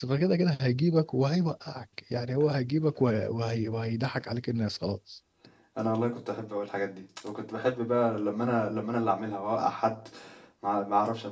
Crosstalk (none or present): none